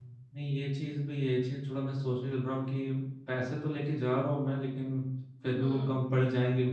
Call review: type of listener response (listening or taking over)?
listening